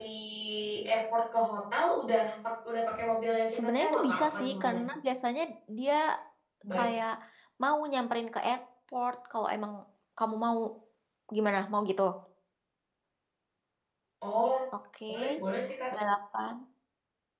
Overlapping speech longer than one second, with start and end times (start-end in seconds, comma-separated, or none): 3.5-4.8